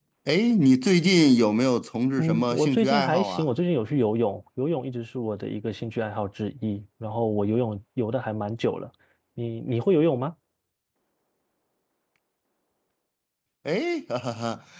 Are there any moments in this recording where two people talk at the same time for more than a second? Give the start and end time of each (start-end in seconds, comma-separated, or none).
2.2-3.5